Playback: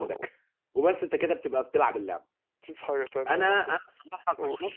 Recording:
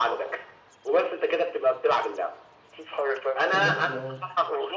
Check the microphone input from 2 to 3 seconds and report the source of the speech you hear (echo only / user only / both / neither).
echo only